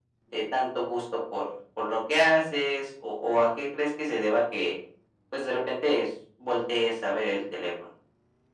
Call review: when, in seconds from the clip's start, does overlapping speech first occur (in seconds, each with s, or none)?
none